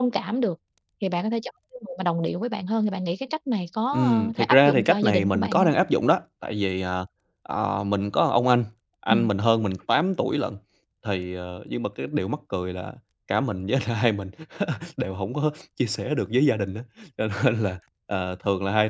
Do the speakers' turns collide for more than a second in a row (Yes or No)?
Yes